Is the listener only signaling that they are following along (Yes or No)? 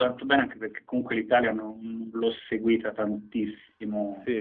No